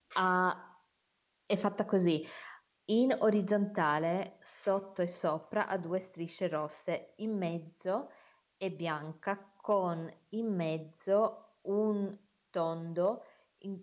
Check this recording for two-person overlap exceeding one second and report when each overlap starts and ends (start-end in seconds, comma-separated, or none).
none